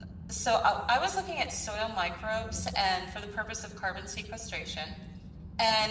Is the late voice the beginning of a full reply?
No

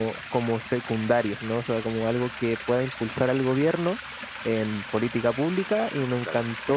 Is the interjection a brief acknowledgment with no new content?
Yes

